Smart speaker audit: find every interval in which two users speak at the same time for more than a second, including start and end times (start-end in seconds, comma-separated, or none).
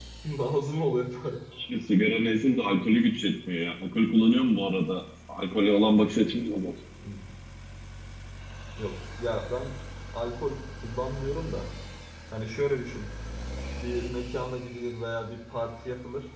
none